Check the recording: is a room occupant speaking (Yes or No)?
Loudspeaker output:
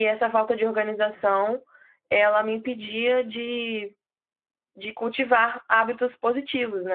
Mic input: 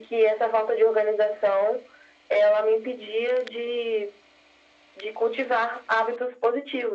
No